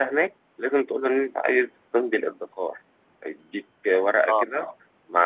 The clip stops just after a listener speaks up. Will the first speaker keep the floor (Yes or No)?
Yes